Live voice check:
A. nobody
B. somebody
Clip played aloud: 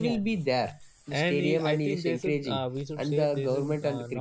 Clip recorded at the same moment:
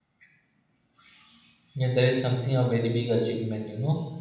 B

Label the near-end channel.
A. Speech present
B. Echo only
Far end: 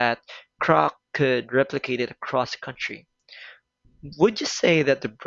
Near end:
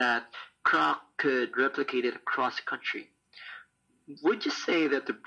B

